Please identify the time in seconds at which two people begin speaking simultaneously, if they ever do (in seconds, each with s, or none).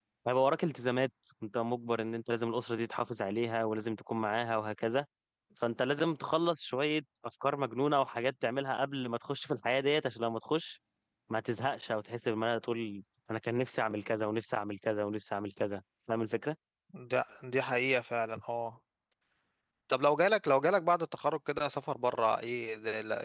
none